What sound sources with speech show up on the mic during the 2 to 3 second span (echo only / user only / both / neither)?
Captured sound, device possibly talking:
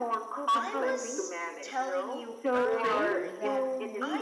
both